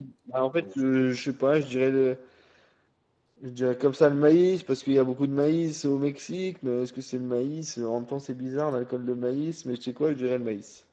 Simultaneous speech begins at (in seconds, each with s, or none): none